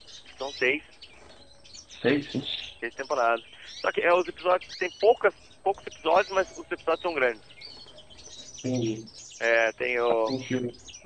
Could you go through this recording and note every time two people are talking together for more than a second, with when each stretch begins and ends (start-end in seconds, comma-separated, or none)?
none